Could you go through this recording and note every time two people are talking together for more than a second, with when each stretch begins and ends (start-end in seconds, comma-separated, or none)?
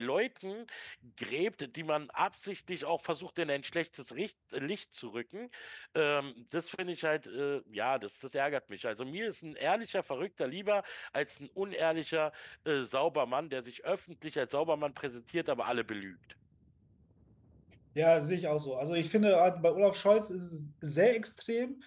none